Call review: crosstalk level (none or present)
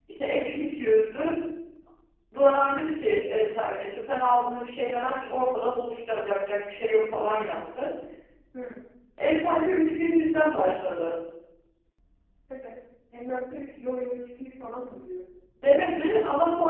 none